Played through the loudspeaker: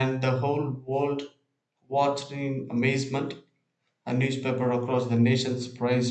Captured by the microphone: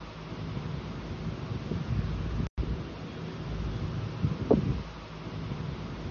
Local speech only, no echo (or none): none